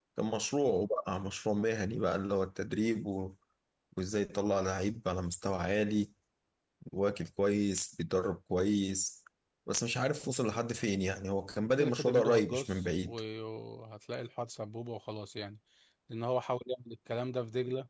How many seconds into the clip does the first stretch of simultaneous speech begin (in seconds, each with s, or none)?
11.8 s